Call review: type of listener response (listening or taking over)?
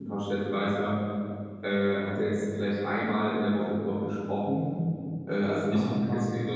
listening